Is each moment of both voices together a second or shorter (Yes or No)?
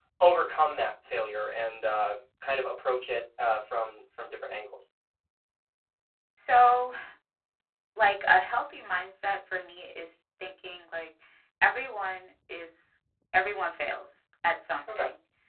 Yes